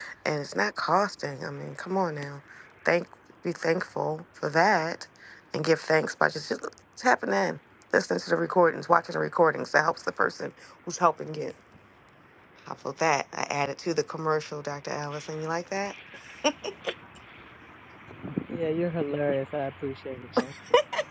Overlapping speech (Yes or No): No